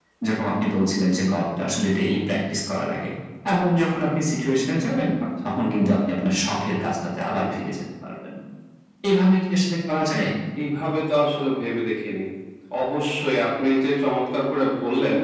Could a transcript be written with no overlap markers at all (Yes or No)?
Yes